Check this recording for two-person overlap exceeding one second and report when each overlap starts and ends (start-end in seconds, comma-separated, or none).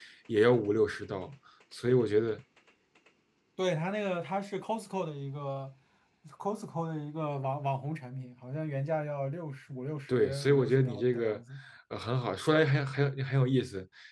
10.1-11.4